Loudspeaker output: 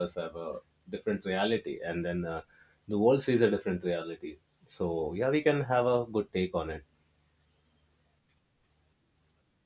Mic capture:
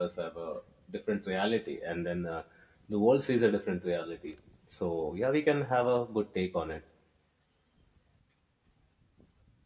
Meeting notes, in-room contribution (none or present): none